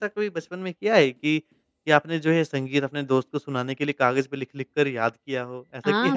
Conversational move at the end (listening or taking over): taking over